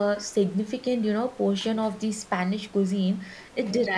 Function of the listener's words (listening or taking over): listening